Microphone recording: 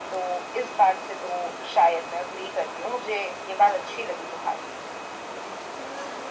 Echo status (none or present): present